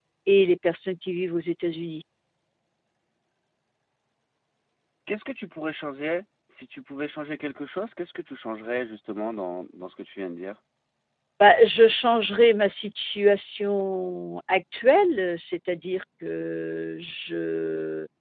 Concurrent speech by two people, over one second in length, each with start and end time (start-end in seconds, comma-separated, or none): none